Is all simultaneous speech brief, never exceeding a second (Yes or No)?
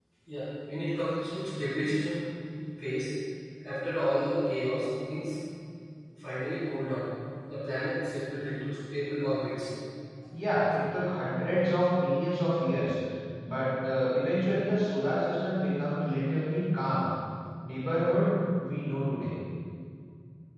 Yes